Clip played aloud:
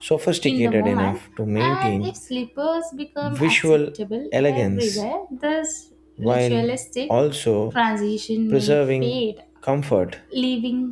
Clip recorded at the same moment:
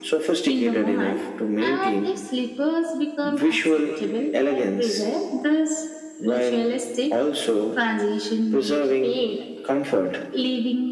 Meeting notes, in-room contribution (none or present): none